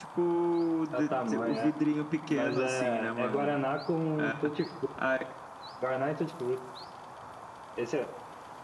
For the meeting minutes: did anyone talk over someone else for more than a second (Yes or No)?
Yes